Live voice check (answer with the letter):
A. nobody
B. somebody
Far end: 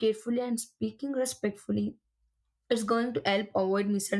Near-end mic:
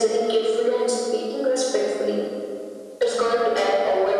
A